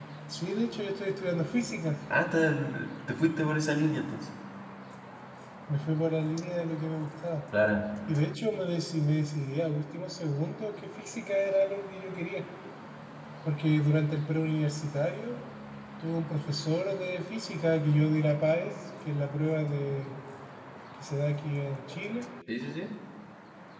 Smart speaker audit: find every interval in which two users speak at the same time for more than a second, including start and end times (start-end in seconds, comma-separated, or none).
none